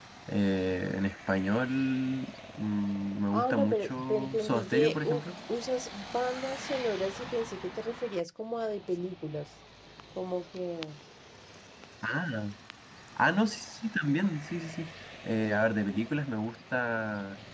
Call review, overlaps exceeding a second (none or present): present